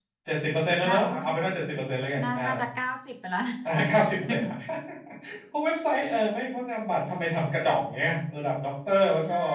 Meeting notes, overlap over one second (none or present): none